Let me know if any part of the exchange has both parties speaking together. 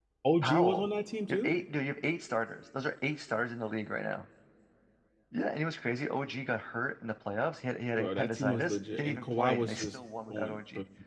Yes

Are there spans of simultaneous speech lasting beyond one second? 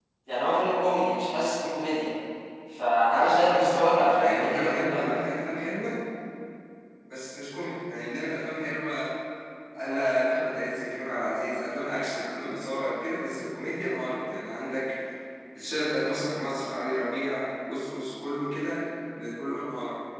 Yes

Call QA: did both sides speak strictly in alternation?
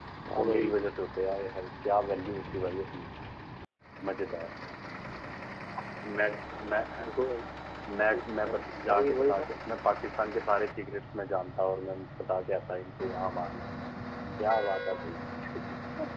No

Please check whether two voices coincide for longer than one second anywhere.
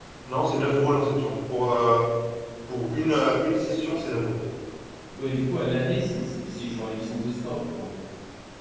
No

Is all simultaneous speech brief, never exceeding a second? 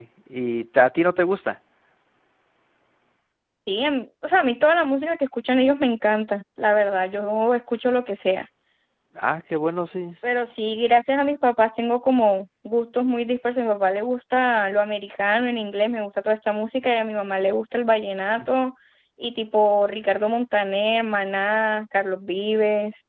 Yes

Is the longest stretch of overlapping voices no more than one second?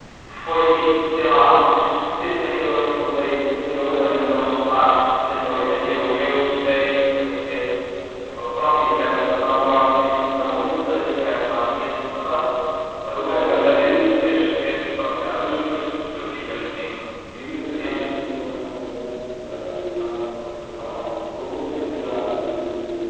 No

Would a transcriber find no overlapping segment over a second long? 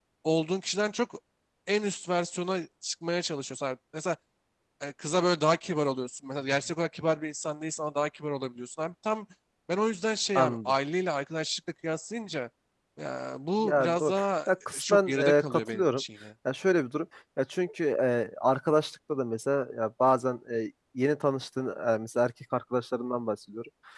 No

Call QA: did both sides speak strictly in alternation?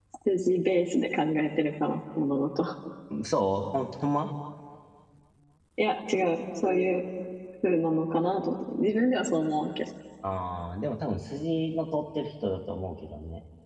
Yes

